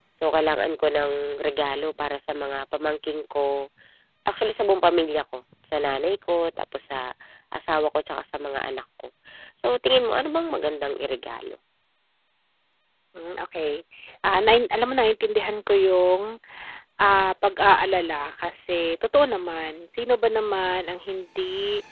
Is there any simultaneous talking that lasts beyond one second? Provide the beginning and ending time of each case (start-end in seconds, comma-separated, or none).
none